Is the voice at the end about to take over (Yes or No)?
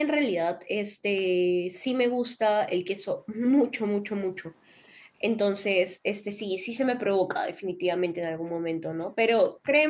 No